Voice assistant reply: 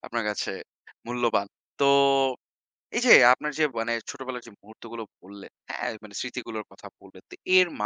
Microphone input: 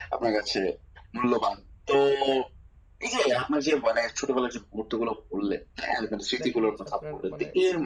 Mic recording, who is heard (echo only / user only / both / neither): both